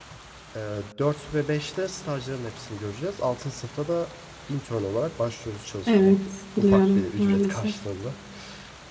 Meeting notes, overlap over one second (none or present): present